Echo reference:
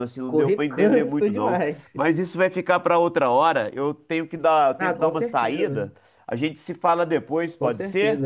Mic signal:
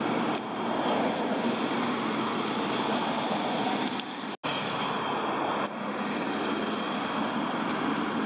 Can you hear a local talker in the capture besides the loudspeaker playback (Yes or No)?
No